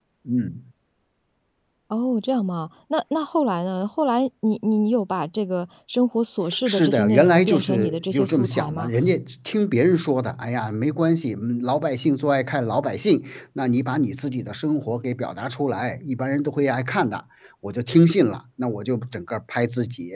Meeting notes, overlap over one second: present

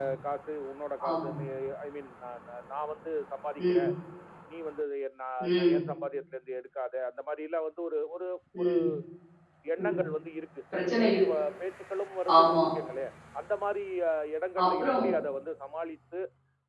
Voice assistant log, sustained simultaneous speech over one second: none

